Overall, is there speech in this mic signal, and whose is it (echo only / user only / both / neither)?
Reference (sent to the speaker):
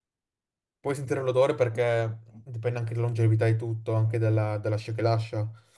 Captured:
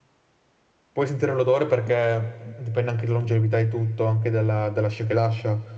echo only